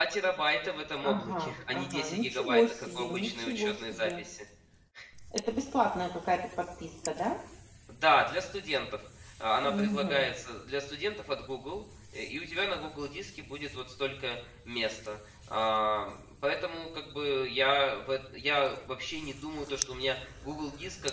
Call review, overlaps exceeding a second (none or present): present